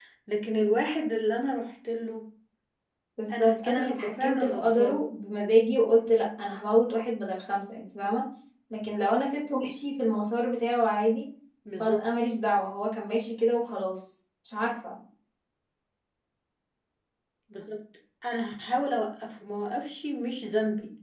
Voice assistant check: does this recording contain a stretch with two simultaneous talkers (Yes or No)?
Yes